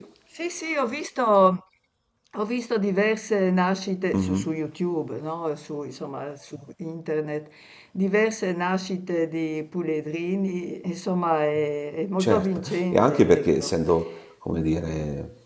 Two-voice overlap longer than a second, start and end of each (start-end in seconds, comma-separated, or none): 12.2-13.7